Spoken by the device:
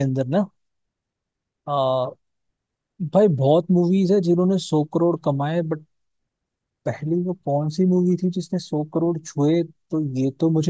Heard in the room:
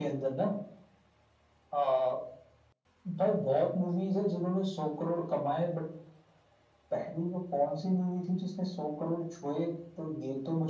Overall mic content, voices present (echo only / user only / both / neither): echo only